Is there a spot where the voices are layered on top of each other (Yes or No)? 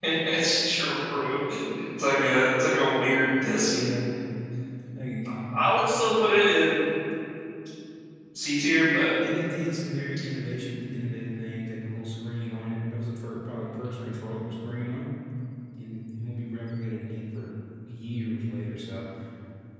No